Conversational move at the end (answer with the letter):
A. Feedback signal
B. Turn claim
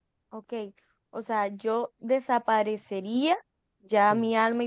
A